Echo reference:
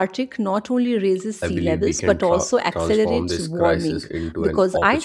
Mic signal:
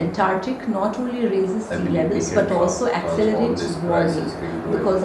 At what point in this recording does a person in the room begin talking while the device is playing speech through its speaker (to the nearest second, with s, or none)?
none